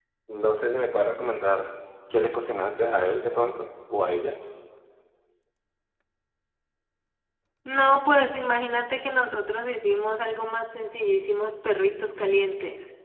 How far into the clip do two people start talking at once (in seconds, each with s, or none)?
none